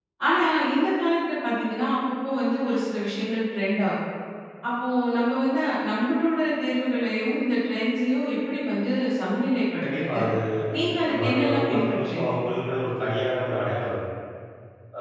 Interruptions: present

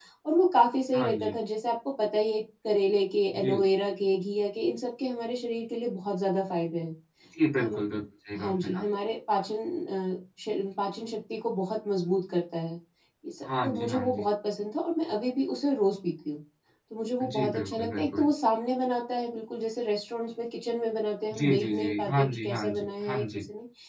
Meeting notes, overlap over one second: present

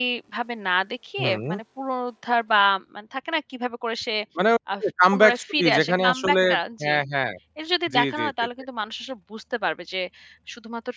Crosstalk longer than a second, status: present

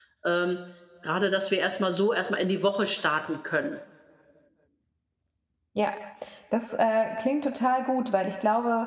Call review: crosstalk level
none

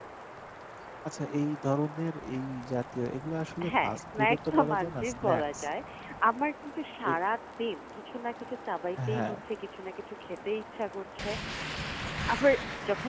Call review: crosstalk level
present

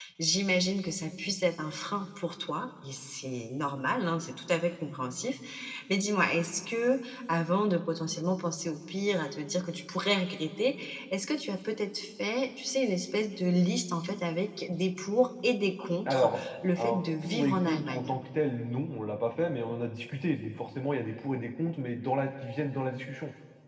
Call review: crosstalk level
present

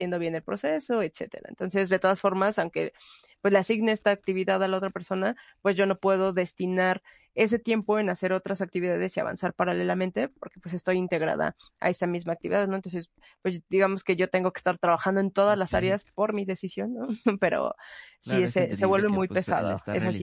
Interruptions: present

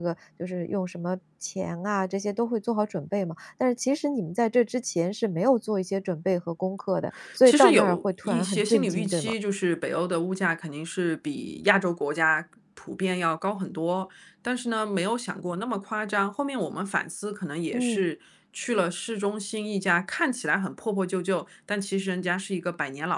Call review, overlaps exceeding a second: present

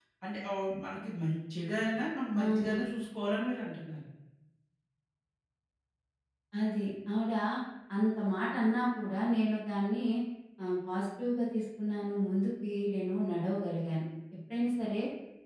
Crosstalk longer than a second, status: none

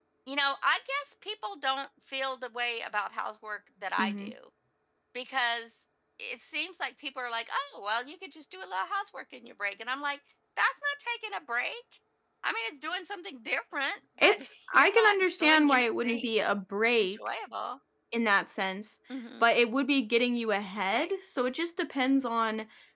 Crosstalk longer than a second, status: present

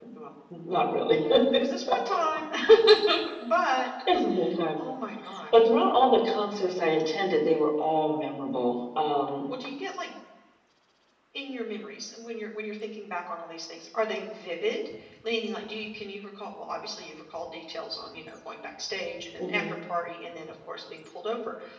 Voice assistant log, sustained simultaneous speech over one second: none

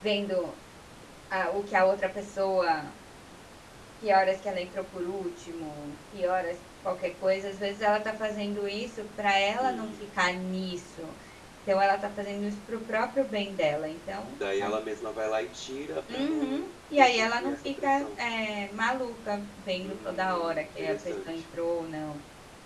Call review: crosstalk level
present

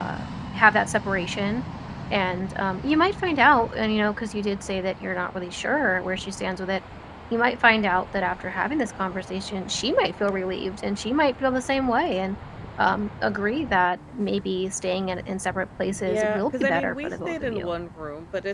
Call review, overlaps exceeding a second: present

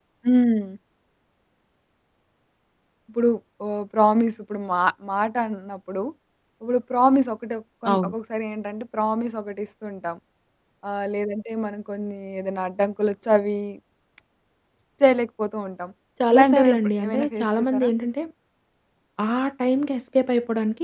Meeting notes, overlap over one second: present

